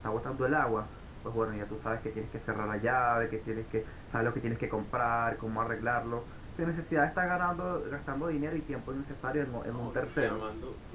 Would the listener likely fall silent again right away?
No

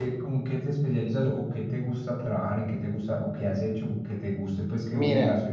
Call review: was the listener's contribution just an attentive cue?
No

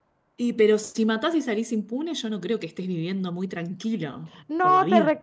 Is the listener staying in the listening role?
No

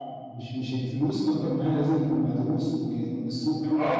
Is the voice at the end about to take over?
Yes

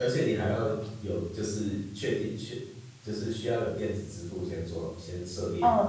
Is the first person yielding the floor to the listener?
Yes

